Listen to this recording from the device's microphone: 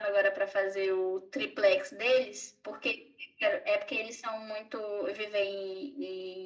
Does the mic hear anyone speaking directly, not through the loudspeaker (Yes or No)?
No